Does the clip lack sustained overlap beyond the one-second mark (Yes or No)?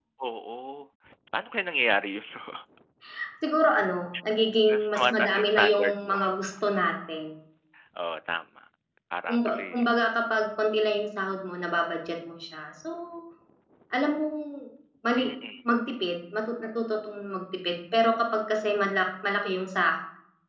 No